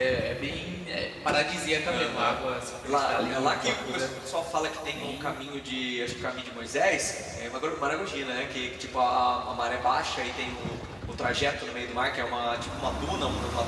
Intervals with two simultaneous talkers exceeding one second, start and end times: 2.9-4.1

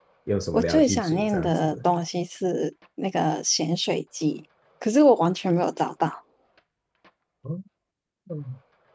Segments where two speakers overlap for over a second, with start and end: 0.5-1.8

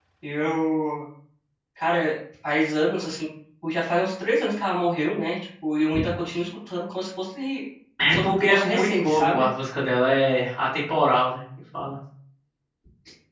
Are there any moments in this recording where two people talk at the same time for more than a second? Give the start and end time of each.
8.1-9.4

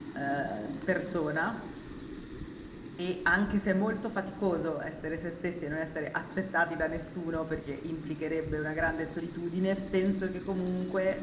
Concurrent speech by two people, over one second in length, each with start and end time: none

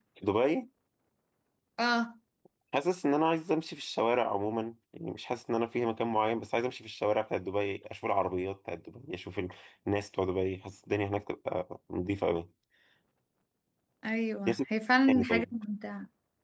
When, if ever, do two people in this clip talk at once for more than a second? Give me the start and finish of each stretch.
none

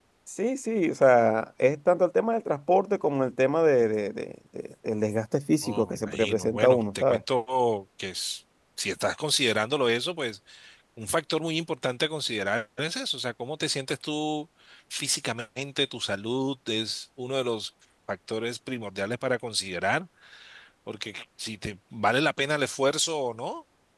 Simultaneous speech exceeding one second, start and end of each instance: 5.6-7.2

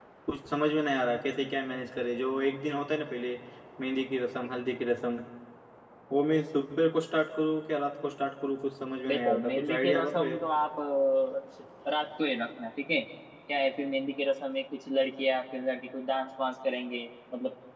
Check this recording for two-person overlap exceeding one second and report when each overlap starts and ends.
9.1-10.4

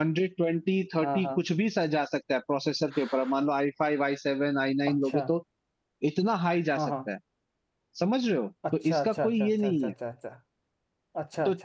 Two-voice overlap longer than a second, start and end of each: 8.7-9.9

